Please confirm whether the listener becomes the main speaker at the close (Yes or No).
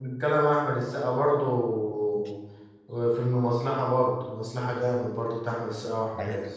Yes